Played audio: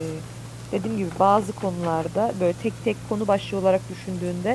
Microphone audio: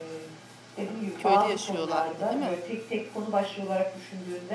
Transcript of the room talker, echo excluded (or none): köyde yaşıyorlardı, değil mi?